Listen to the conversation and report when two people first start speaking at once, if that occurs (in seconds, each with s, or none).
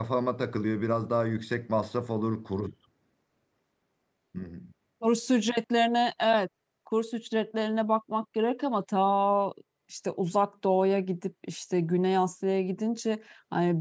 none